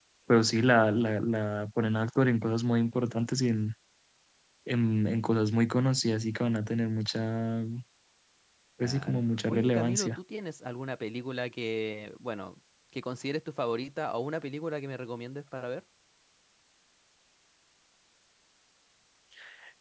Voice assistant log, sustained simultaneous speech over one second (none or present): present